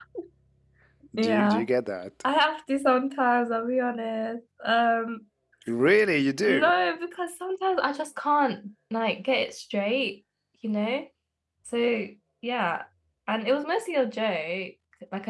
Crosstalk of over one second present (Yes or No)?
No